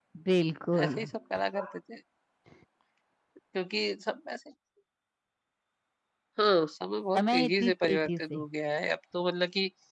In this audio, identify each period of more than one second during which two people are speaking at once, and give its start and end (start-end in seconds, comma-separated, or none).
7.1-8.4